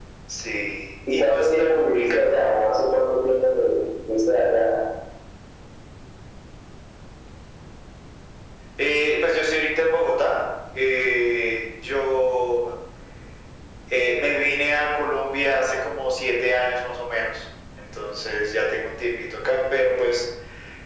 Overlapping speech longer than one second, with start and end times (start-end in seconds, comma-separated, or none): 1.1-2.4